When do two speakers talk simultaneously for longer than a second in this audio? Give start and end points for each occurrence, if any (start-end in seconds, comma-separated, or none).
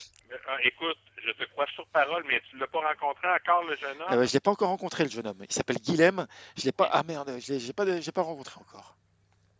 none